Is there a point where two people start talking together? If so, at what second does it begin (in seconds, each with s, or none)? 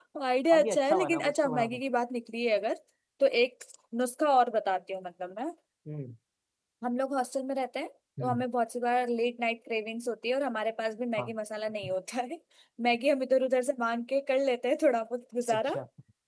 0.5 s